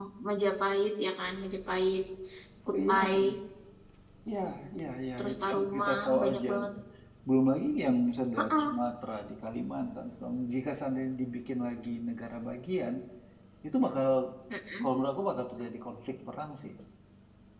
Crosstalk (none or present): present